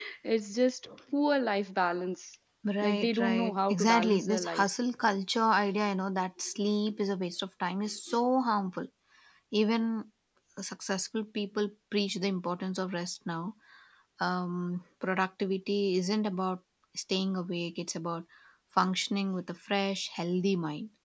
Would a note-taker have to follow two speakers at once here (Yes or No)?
Yes